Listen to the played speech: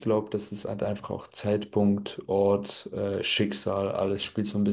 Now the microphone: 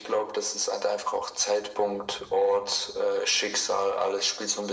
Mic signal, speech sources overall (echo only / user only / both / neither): echo only